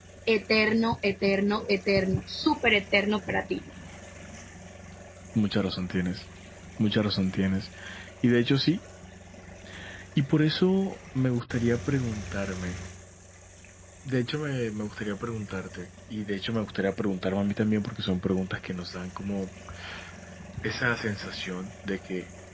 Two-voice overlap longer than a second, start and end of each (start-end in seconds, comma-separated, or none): none